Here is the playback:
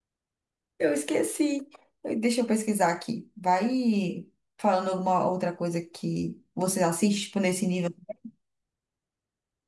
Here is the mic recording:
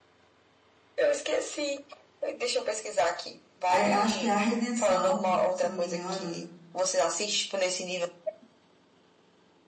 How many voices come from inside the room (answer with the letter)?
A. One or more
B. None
A